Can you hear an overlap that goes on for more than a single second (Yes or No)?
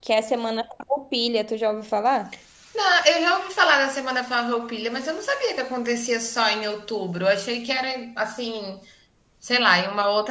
No